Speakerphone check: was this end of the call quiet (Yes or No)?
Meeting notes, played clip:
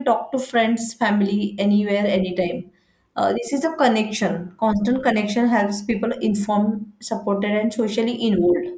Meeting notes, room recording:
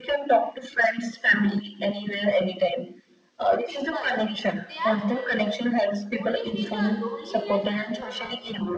No